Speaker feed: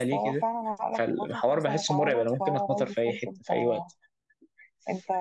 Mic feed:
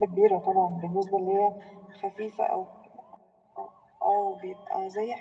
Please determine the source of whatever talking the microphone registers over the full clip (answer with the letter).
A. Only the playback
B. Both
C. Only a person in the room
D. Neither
C